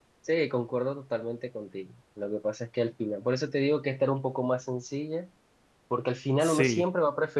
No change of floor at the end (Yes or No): Yes